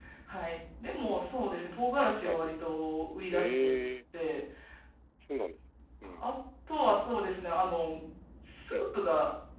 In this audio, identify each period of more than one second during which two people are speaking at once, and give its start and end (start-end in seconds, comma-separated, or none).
none